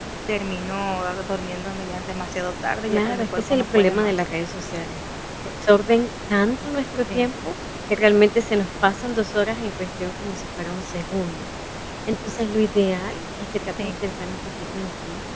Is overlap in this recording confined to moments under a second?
No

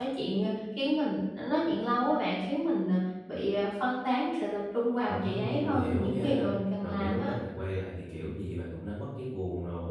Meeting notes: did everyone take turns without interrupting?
No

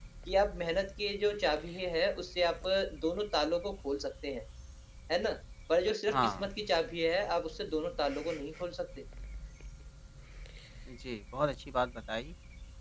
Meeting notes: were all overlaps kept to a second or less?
Yes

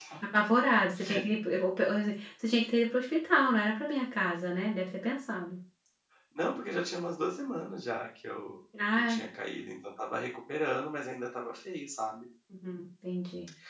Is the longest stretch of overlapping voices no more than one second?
Yes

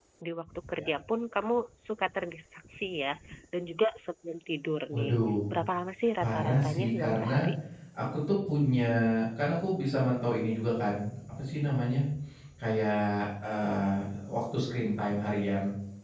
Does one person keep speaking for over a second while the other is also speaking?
Yes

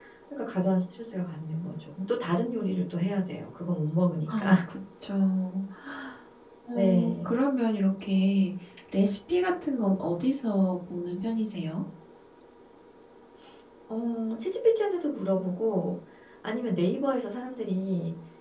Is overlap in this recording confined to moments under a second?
Yes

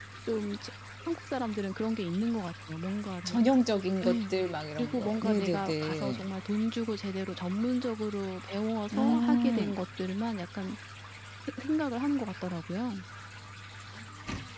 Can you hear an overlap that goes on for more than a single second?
Yes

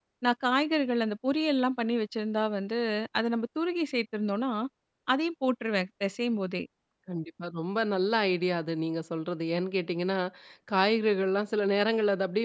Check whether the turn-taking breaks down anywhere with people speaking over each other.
No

